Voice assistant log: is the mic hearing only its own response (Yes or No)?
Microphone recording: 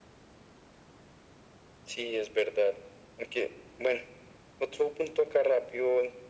Yes